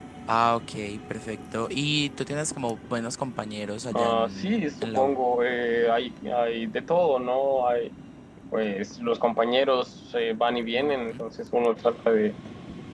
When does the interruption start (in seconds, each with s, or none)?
3.9 s